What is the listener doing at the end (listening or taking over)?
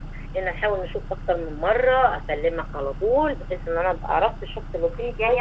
taking over